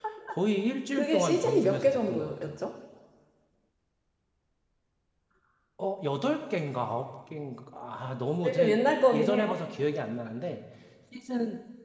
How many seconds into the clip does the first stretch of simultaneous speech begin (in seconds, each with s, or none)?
1.0 s